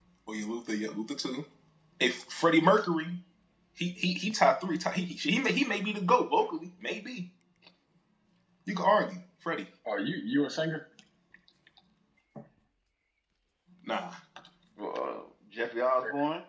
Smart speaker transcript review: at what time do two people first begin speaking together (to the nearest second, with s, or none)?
none